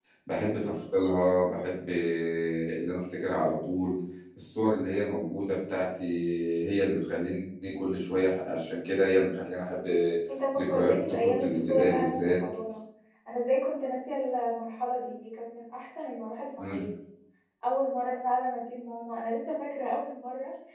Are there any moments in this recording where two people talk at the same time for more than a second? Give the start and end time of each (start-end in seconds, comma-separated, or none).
10.6-12.3